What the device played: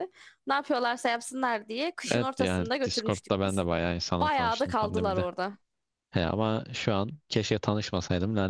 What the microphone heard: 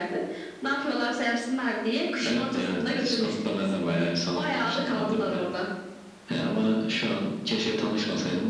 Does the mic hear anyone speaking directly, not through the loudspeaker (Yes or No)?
No